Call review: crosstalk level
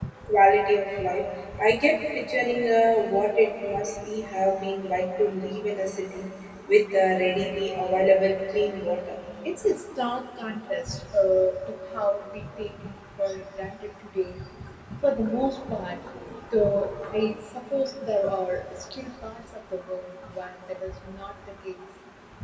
none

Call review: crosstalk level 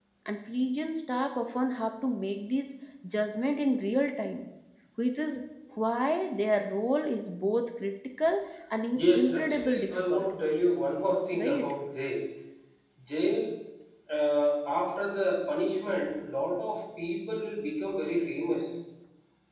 present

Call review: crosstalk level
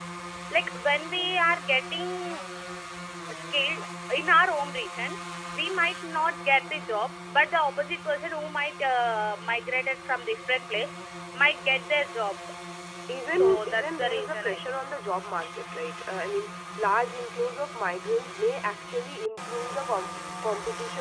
present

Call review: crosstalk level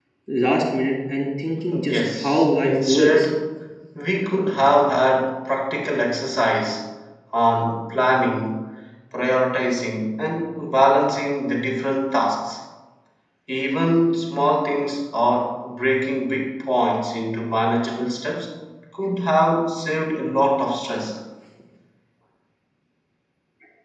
present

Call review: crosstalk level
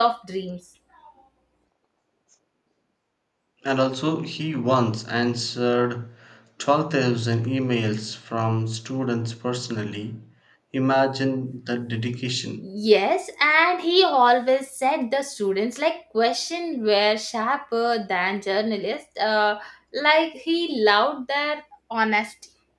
none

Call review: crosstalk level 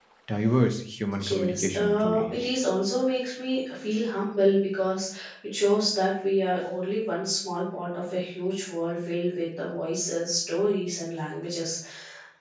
present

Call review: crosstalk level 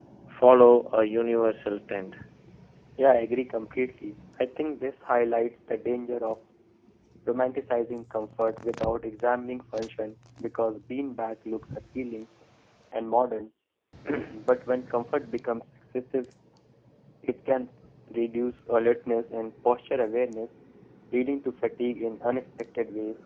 none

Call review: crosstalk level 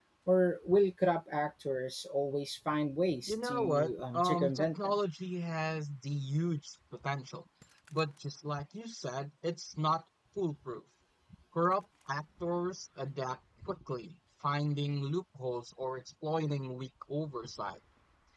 present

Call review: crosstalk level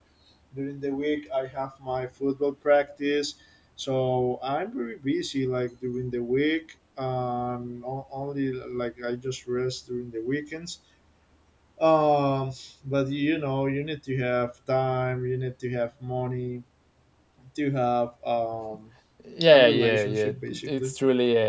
present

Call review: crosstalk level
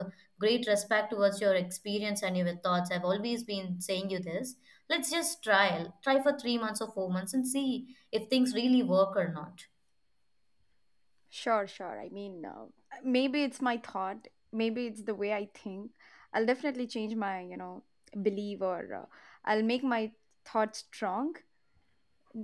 none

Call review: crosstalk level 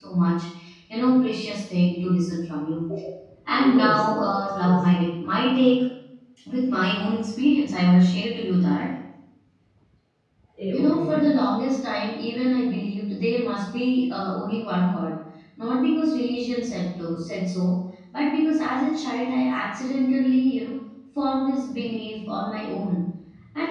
present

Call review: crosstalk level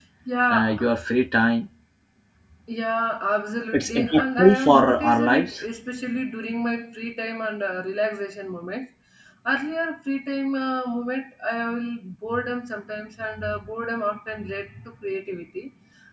present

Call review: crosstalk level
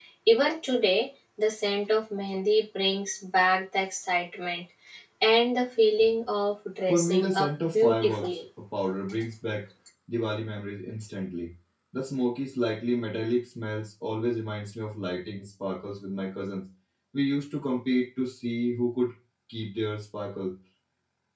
present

